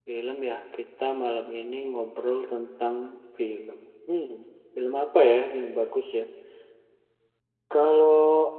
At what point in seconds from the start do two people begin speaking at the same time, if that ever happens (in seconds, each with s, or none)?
none